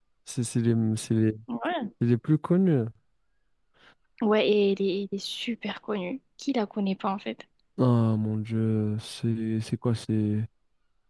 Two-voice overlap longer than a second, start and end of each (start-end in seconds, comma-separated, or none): none